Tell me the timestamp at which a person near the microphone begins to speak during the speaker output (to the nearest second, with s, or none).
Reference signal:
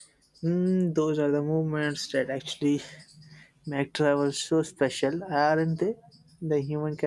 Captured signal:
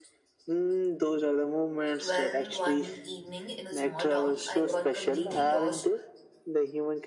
2 s